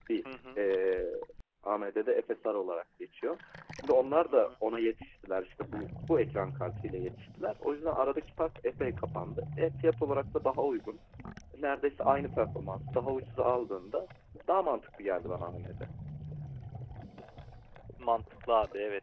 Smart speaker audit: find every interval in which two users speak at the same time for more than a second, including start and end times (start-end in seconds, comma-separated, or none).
none